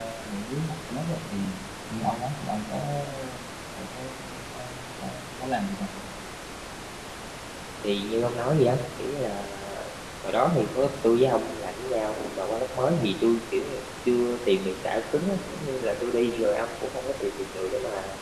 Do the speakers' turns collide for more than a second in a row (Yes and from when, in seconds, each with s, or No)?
No